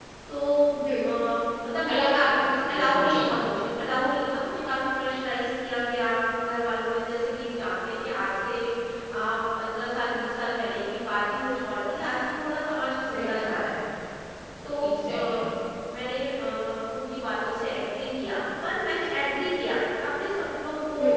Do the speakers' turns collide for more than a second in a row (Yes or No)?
Yes